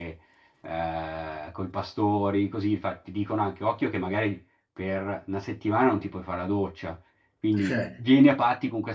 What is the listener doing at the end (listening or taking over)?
listening